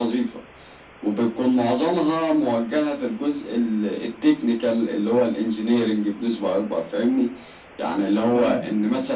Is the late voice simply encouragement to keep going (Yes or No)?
Yes